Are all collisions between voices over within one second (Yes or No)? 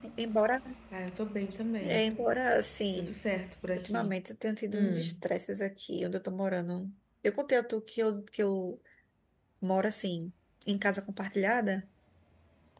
Yes